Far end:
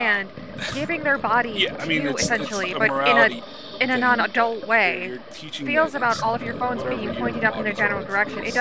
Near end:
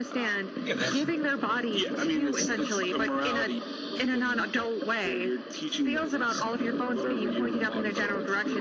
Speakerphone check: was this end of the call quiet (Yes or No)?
No